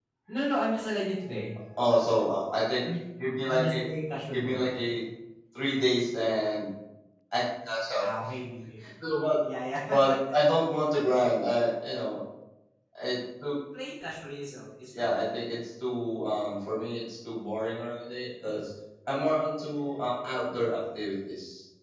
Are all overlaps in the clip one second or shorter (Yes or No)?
Yes